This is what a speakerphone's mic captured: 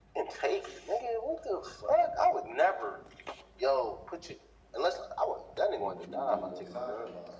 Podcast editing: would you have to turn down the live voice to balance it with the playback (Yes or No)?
No